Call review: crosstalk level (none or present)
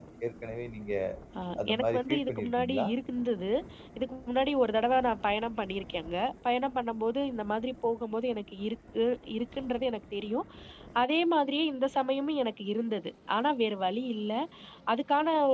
present